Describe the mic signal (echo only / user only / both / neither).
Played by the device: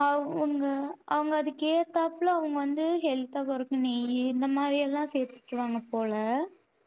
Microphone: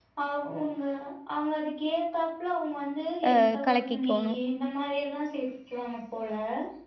both